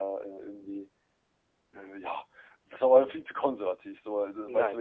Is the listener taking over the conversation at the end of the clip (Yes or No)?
No